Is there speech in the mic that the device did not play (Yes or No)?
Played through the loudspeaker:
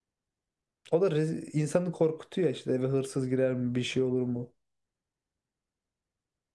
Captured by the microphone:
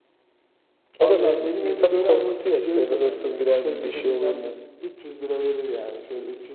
Yes